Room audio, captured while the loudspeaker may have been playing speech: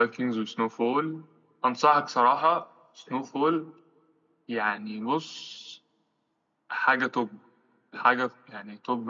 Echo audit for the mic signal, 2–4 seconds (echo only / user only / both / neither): echo only